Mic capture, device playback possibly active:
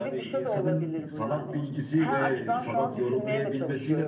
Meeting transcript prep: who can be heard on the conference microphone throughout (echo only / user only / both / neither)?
both